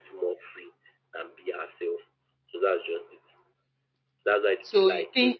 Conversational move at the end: taking over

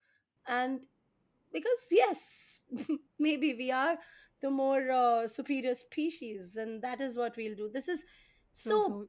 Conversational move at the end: taking over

